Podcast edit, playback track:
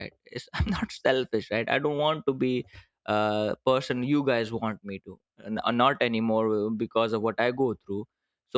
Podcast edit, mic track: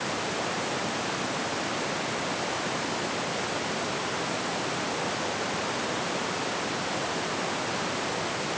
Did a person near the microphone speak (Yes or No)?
No